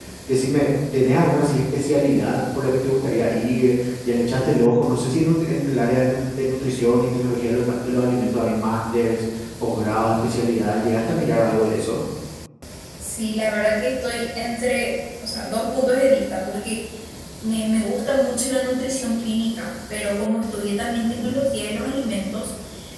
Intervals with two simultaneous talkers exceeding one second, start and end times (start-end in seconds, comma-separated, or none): none